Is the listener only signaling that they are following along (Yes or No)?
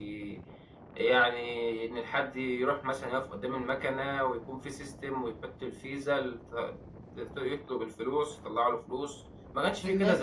No